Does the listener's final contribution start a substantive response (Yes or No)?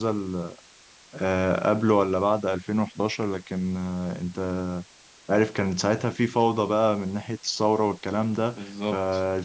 No